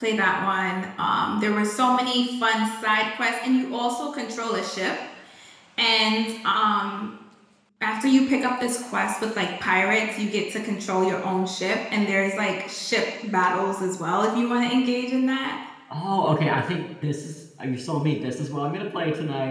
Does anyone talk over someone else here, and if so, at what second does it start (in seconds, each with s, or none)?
none